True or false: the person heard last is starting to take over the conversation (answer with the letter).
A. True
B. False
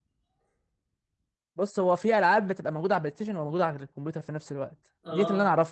B